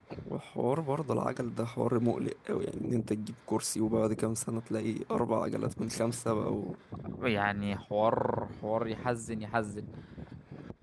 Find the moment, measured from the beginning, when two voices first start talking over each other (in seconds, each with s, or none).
none